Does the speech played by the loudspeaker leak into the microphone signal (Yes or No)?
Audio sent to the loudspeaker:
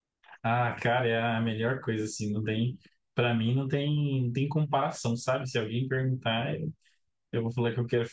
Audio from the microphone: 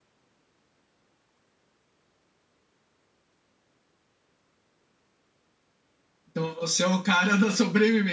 No